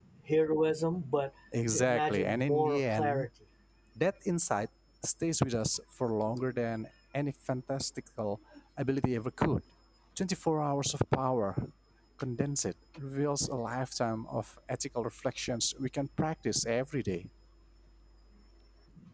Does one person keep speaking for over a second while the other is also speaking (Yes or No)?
Yes